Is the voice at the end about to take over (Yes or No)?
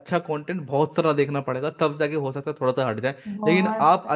No